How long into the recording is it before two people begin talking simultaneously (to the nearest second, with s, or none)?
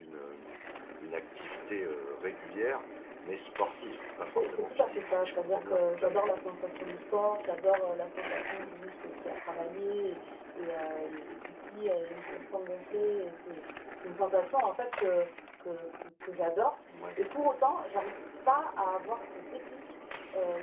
4 s